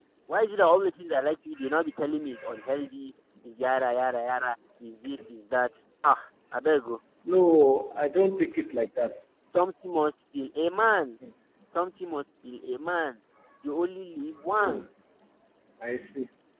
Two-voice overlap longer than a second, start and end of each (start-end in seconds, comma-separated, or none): none